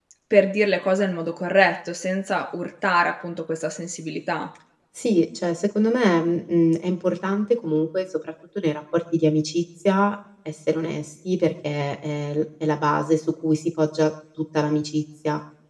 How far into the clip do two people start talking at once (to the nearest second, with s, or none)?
none